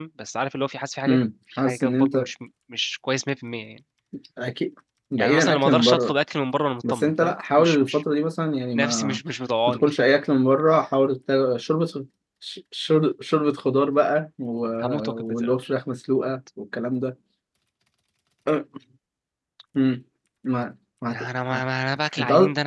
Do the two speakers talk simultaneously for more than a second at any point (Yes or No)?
Yes